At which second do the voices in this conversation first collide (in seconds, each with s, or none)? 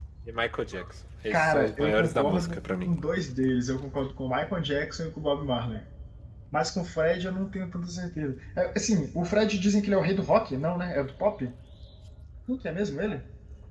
1.3 s